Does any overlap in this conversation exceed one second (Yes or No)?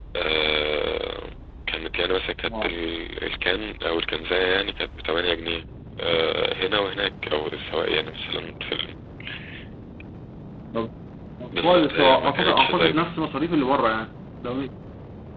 Yes